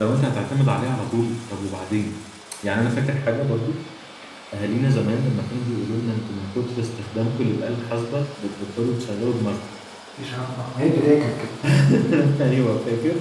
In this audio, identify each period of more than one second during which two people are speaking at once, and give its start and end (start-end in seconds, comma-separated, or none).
none